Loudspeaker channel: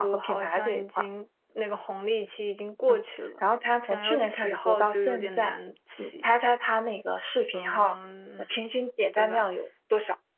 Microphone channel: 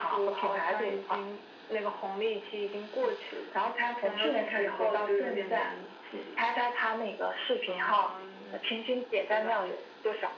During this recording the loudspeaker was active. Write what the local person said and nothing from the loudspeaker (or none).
none